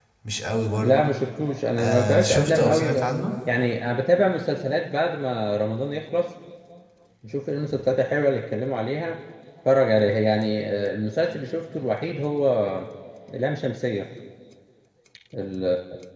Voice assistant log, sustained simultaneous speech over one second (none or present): present